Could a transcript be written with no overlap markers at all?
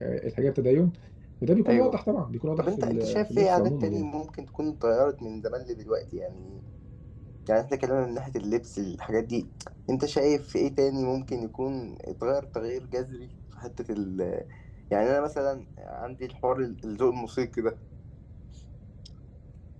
No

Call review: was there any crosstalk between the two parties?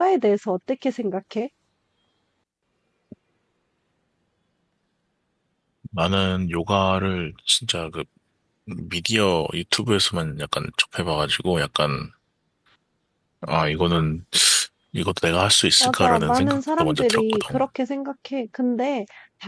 Yes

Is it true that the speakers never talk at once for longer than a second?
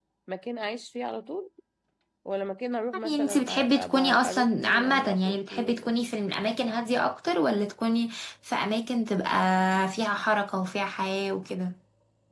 No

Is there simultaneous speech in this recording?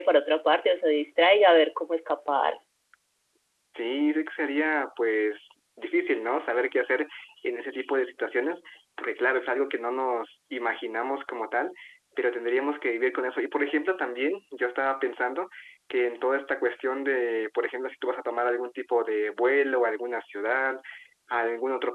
No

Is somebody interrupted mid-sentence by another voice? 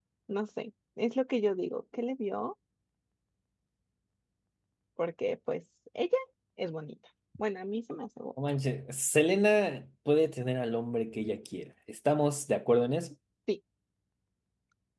No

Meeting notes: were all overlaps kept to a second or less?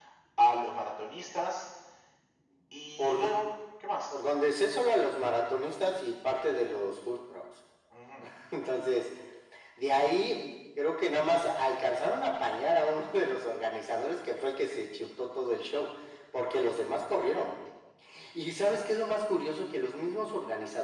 Yes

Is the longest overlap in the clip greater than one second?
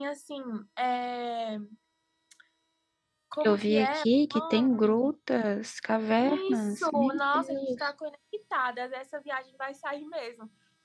Yes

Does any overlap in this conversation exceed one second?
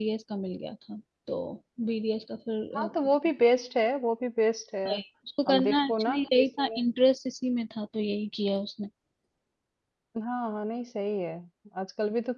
Yes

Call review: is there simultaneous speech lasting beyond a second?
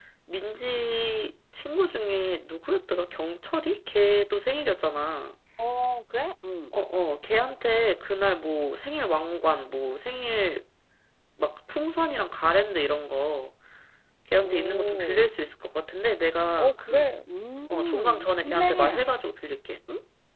Yes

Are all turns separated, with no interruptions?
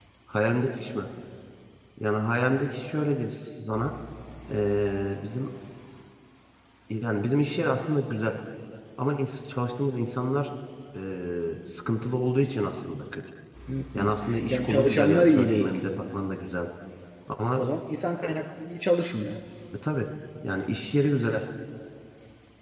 No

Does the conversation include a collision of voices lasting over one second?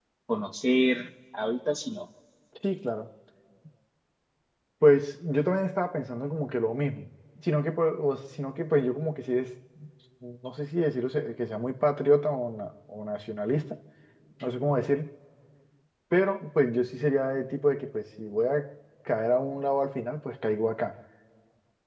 No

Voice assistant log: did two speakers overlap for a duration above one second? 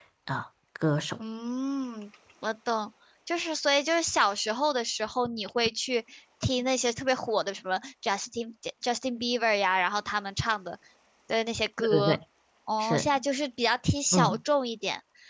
No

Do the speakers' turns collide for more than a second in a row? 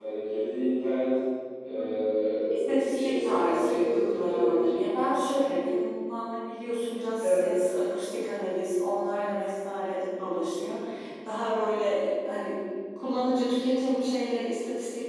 Yes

